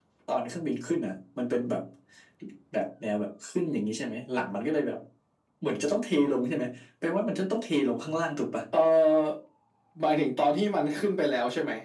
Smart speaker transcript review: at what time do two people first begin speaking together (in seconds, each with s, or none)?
none